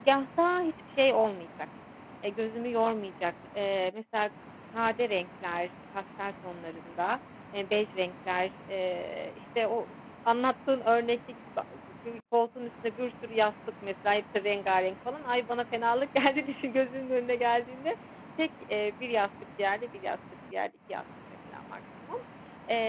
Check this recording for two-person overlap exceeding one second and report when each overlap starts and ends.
none

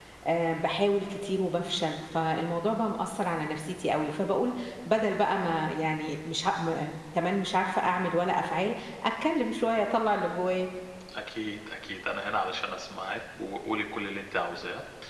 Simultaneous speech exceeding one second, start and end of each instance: none

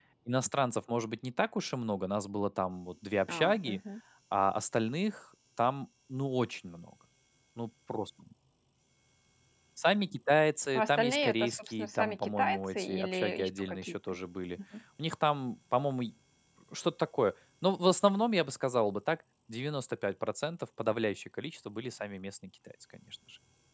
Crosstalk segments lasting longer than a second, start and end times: 10.8-13.9

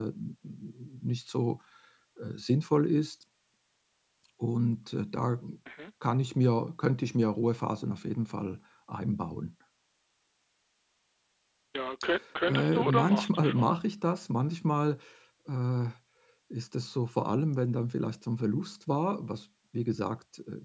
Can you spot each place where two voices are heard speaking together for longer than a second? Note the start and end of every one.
12.4-13.7

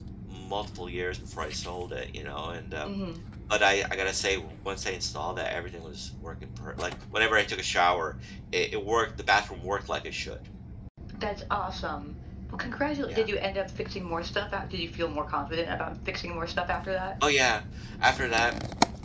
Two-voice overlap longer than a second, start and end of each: none

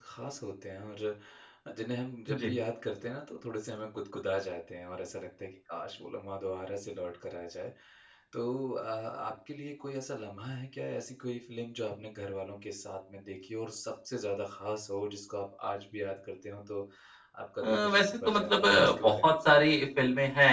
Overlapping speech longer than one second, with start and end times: 17.6-19.6

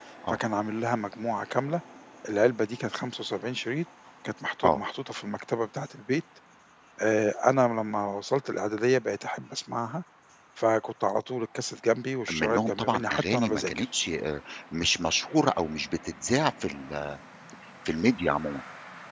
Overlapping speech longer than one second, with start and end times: 12.3-13.8

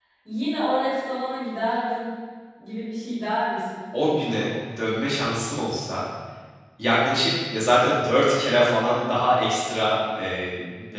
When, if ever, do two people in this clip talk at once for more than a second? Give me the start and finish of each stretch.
none

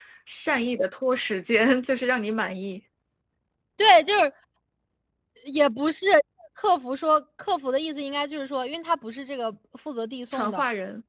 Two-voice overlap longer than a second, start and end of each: none

